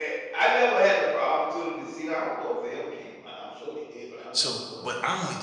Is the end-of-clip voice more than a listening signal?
Yes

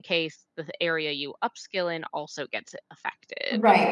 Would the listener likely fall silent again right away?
No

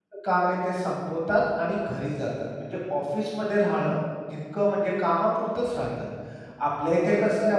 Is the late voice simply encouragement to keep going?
Yes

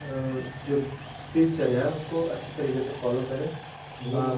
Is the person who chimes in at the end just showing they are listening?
Yes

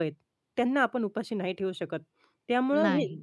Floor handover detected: No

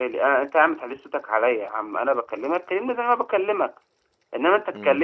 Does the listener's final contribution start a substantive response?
No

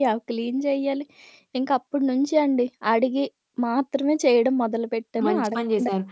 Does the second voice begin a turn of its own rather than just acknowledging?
Yes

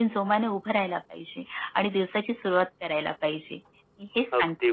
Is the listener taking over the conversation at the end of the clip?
Yes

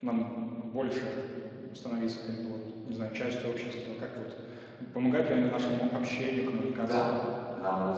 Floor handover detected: Yes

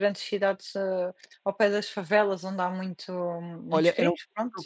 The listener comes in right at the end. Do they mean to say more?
Yes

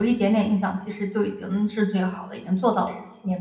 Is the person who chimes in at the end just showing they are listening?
No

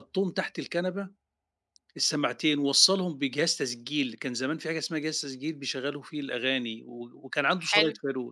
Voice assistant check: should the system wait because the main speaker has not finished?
Yes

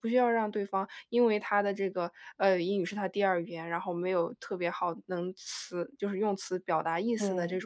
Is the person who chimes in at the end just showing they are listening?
Yes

